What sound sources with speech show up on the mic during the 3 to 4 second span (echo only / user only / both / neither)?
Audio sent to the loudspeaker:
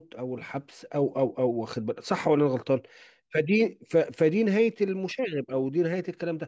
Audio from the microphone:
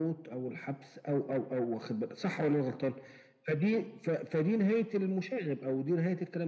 echo only